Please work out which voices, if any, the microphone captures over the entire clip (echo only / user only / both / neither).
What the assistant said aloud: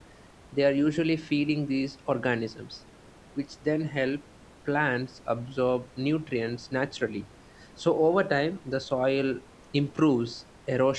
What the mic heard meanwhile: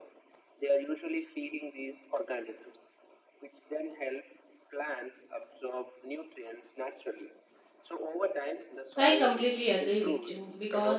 both